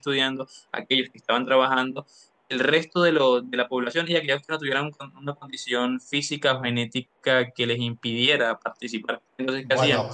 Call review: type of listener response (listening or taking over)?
taking over